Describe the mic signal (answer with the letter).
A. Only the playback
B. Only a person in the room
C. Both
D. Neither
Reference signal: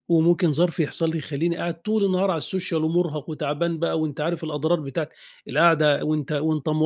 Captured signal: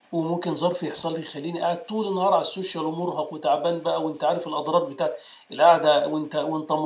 A